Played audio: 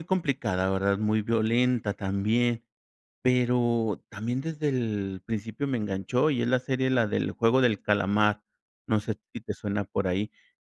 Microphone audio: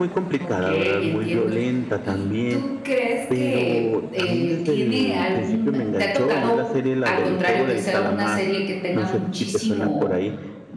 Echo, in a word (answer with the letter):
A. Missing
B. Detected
B